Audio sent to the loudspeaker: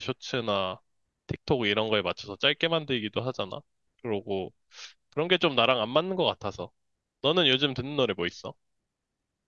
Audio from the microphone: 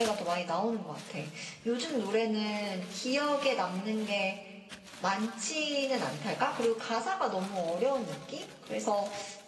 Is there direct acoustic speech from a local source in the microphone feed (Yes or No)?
Yes